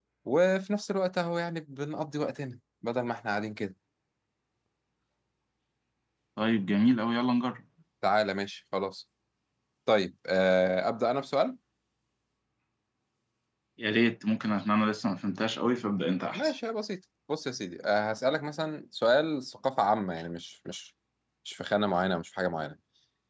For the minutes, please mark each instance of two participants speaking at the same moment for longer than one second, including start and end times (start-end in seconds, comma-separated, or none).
none